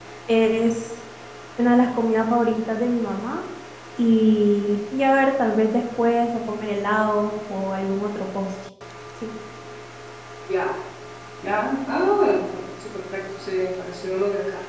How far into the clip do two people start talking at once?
none

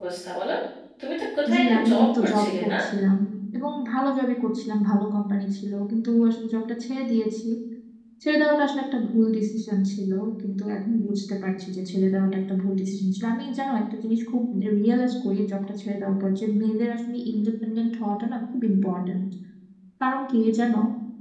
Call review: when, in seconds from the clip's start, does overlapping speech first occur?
2 s

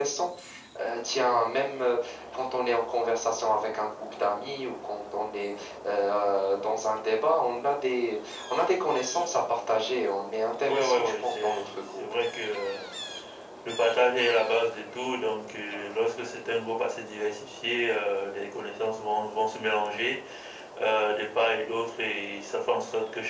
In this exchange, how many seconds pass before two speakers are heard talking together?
11 s

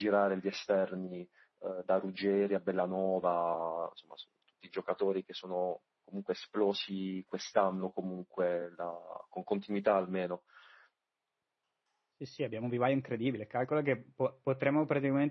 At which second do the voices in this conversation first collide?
none

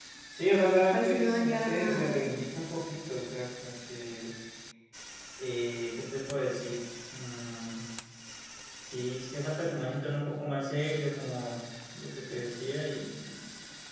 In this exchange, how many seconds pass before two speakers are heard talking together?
1 s

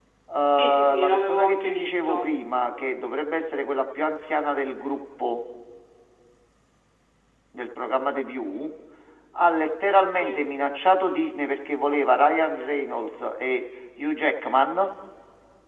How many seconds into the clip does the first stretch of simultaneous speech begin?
1 s

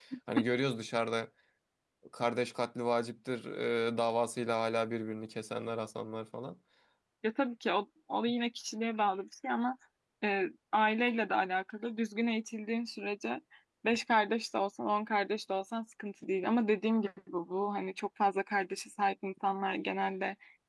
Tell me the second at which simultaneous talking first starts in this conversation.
none

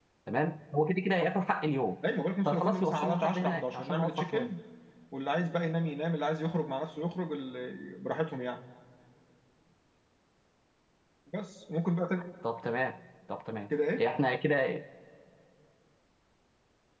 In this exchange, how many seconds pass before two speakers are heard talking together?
2 s

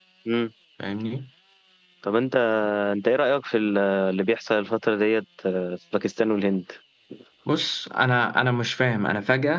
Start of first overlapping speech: none

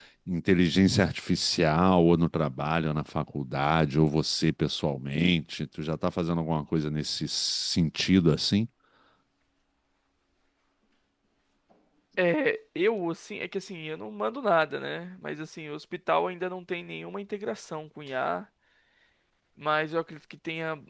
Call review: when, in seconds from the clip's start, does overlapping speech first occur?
none

